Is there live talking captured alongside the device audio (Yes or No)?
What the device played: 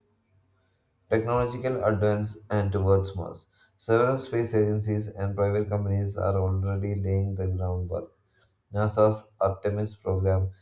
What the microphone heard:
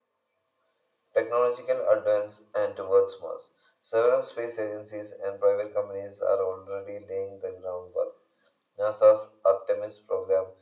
No